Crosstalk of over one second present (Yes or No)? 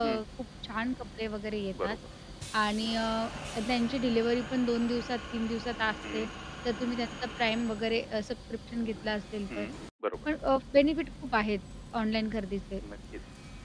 No